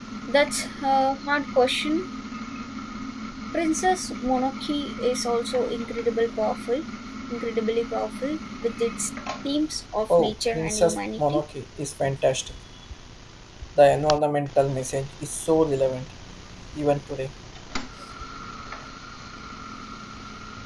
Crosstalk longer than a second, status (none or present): present